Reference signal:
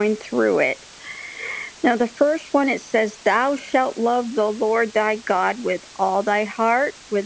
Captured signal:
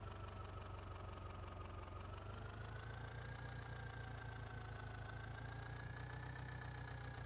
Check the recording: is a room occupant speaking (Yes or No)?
No